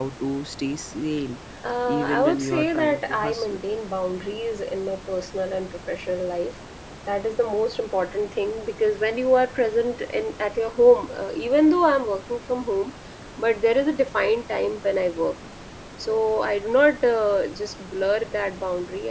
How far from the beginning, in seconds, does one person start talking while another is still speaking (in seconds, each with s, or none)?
1.9 s